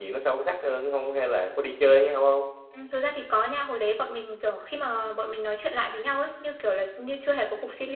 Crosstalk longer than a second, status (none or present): none